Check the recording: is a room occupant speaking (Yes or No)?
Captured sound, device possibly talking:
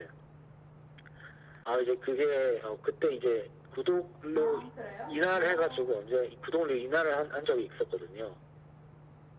Yes